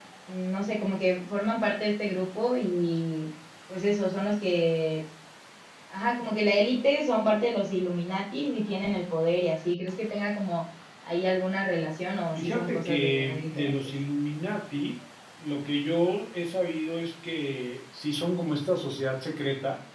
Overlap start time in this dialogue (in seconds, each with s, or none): 12.3 s